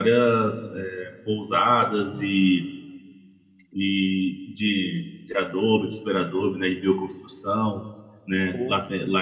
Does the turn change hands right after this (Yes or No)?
No